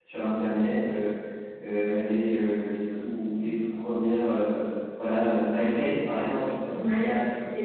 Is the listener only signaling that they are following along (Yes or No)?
No